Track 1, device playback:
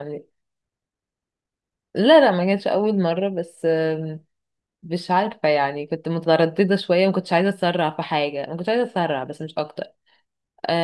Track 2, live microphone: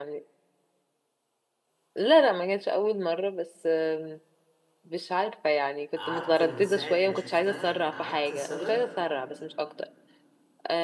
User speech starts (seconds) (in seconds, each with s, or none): 5.9 s